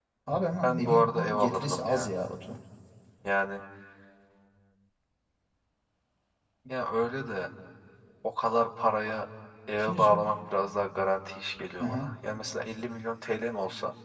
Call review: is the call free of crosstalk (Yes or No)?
No